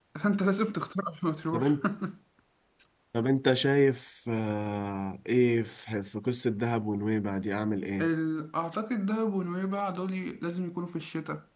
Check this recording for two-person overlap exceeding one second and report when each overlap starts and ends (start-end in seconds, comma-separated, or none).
none